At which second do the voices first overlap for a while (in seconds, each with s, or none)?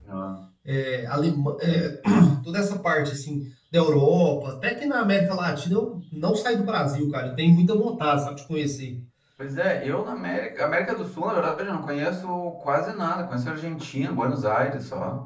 none